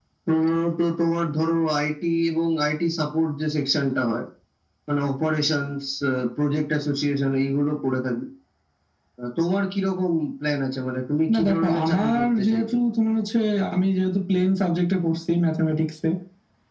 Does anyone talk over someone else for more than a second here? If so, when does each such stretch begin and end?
11.3-12.6

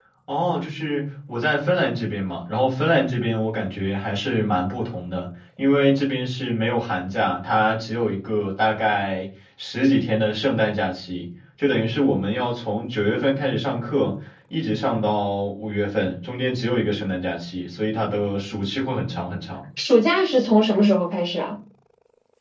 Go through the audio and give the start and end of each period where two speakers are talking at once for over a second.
none

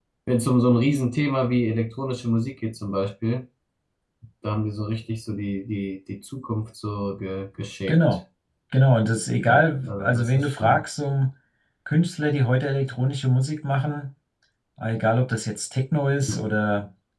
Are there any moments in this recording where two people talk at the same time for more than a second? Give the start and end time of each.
9.5-10.8

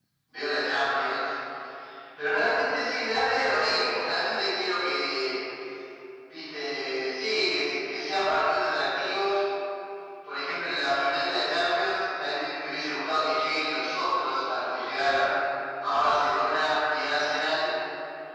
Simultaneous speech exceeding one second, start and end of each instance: none

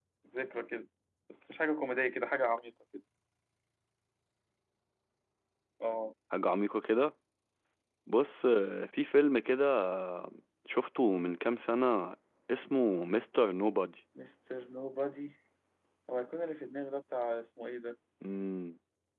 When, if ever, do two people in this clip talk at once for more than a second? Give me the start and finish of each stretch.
none

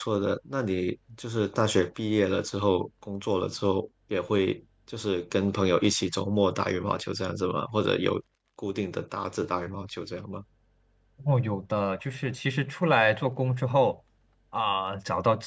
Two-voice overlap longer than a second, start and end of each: none

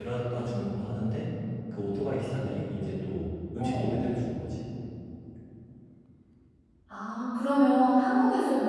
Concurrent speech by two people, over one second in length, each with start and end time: none

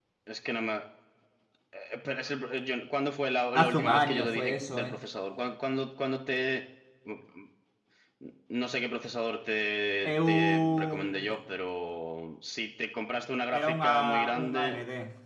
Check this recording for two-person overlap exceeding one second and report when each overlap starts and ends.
3.5-5.0, 10.0-11.4, 13.5-14.8

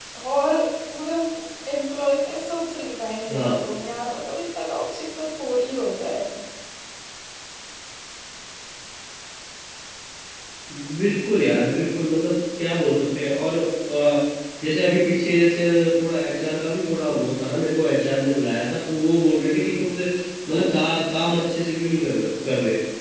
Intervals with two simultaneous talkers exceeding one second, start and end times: none

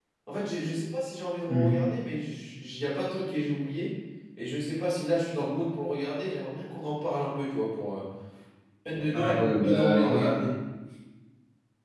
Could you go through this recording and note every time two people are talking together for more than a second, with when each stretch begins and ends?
9.1-10.4

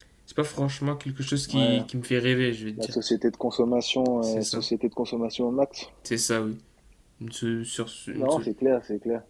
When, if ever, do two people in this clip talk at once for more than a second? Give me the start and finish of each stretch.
none

